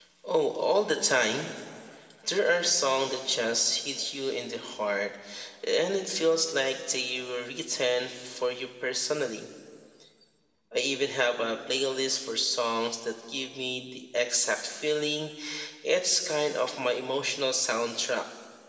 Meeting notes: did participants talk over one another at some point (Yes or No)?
No